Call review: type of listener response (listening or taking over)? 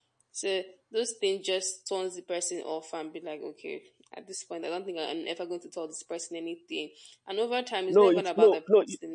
taking over